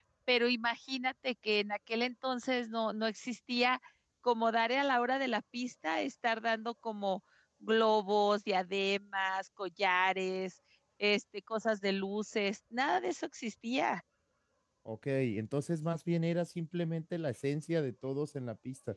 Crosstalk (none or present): none